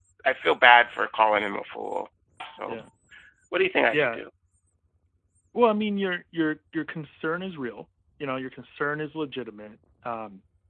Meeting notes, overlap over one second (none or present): none